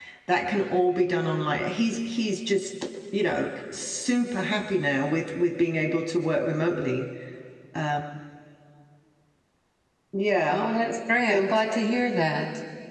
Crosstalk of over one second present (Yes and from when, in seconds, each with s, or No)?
No